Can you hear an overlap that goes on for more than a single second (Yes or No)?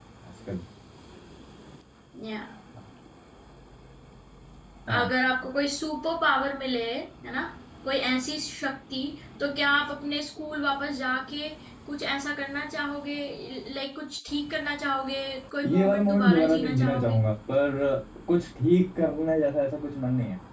Yes